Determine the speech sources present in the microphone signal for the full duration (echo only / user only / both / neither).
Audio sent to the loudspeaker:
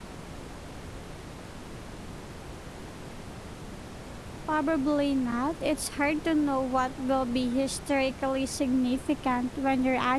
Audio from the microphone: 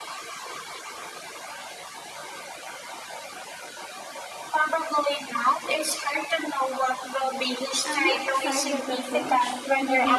both